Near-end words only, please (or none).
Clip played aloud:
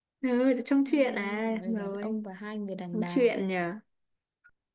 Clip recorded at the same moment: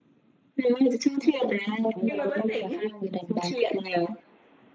em mà vẫn tỉnh